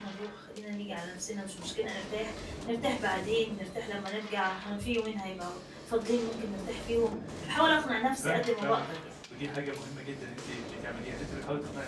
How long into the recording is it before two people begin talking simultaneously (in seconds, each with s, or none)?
7.3 s